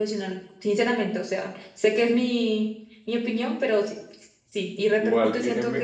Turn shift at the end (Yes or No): Yes